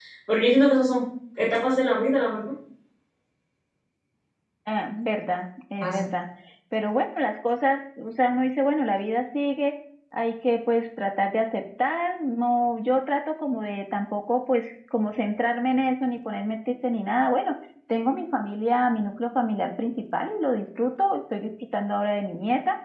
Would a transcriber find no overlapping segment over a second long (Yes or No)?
Yes